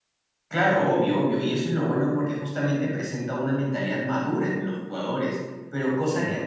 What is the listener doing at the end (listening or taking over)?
listening